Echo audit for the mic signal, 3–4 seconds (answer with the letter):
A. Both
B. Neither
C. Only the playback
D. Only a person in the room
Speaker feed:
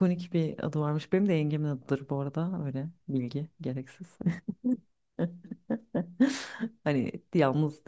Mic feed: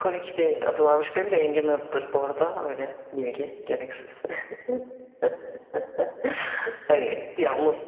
C